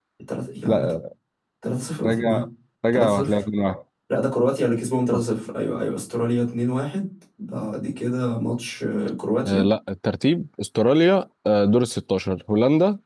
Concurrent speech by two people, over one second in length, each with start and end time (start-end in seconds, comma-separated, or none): none